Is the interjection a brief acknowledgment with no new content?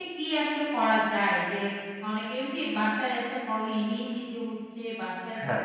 Yes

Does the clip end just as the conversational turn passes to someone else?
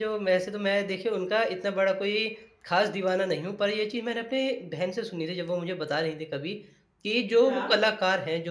No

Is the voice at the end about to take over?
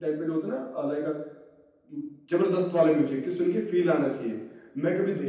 No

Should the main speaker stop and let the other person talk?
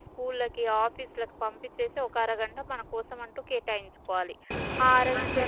No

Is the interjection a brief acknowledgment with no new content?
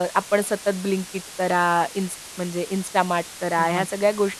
Yes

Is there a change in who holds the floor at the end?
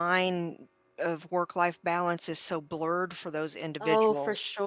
Yes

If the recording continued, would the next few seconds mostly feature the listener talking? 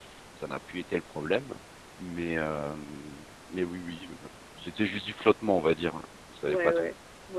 Yes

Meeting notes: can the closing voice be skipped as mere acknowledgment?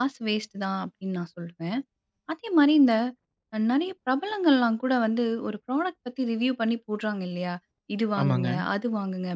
Yes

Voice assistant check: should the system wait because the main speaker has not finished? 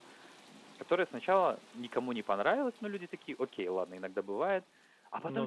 Yes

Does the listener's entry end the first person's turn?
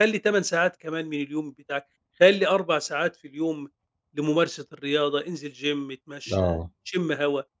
No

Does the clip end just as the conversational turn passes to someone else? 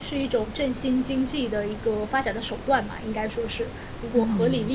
Yes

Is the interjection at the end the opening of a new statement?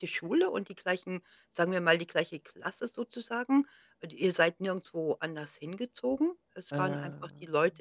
No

